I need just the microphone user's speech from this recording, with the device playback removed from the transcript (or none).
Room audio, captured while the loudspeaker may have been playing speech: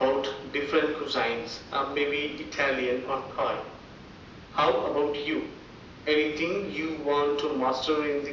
none